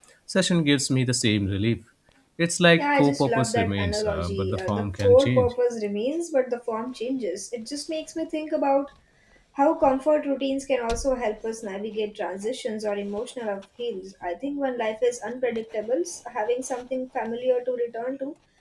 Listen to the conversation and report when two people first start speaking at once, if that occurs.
2.8 s

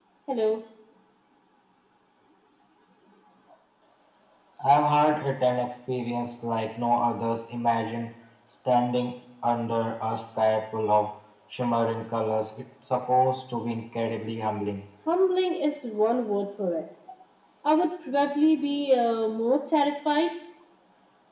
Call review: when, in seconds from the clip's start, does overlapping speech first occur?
none

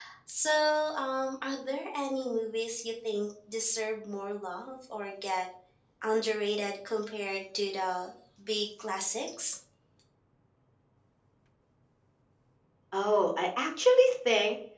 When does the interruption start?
none

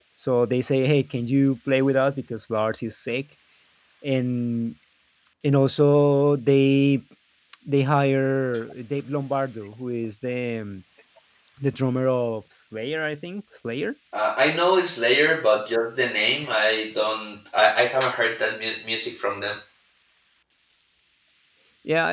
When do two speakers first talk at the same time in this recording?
none

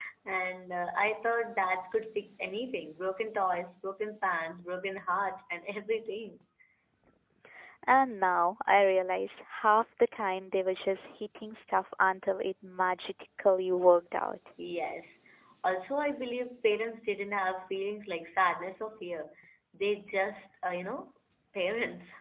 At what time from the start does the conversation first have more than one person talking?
none

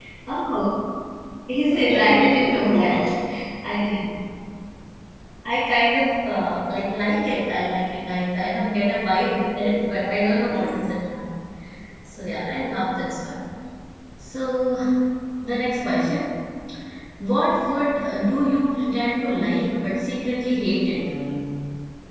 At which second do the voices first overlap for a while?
1.7 s

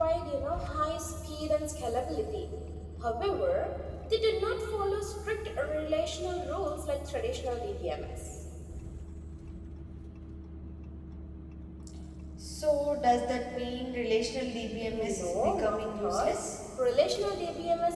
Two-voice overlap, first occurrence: 14.9 s

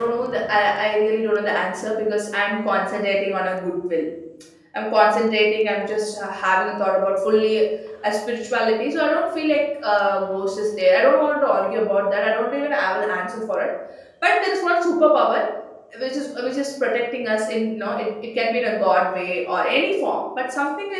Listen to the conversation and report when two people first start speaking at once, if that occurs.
none

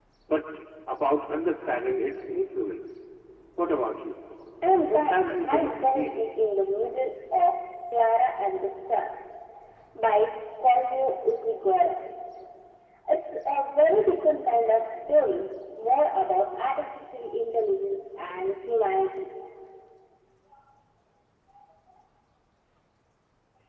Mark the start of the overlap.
4.9 s

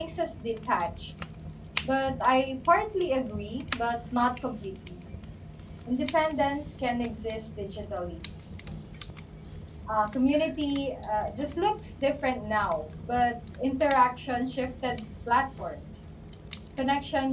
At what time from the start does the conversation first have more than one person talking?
none

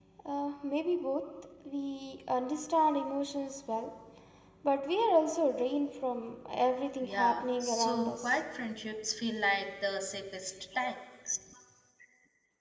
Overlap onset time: 7.0 s

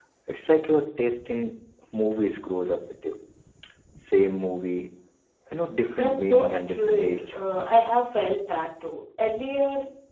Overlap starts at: 6.0 s

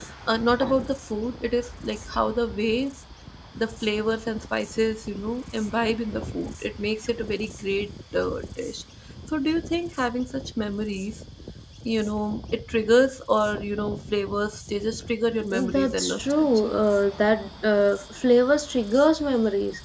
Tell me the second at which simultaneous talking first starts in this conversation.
15.5 s

